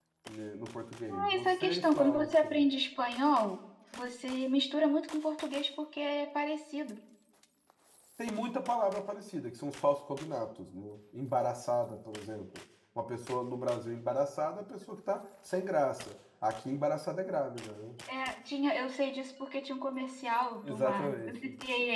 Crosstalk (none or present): present